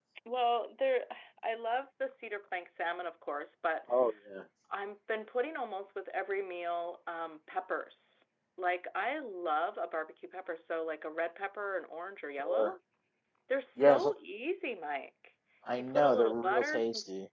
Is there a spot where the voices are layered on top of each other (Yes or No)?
Yes